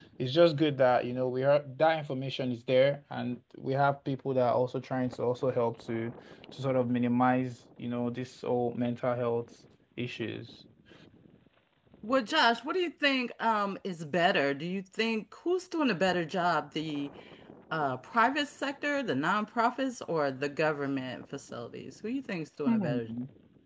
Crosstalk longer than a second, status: none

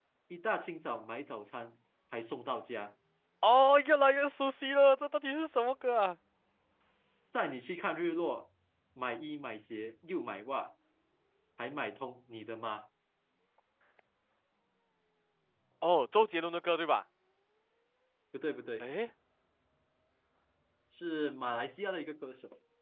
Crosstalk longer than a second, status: none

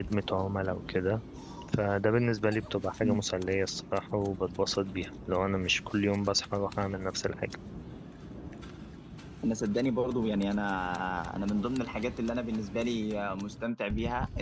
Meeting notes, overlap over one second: none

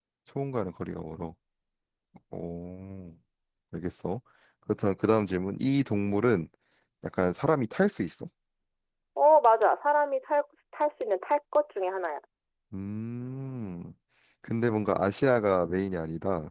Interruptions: none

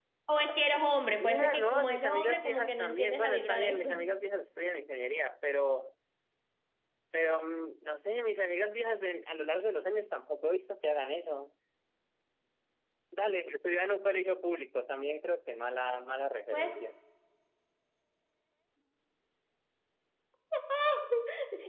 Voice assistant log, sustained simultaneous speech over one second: present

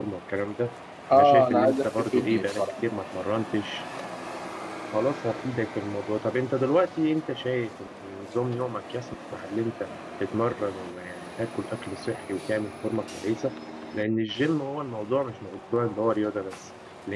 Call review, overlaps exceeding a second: present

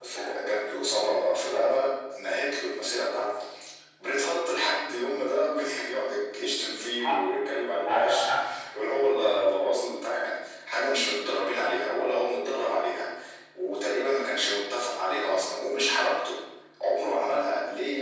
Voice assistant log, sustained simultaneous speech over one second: none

